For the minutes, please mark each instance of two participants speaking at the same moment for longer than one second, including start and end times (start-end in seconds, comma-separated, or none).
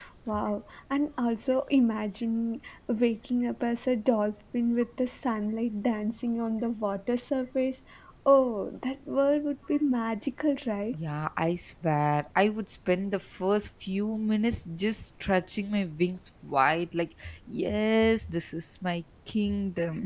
none